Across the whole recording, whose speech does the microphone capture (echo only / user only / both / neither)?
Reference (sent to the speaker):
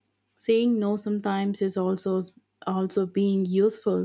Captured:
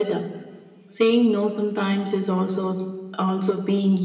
echo only